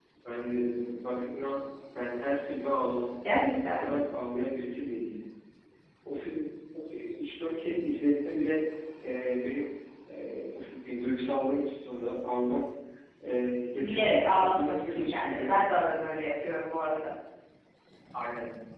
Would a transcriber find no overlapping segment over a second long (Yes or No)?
No